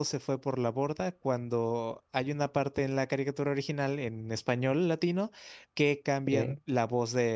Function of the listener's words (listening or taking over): listening